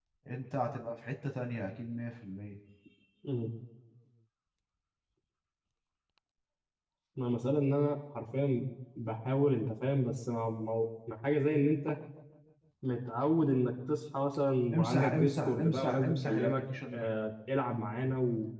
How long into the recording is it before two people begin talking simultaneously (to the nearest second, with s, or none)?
15 s